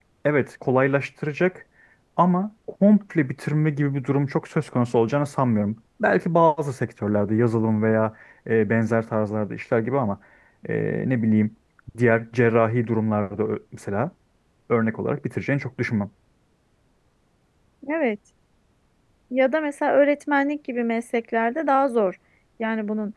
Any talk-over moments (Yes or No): No